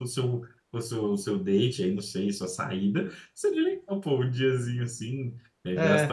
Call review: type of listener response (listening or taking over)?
listening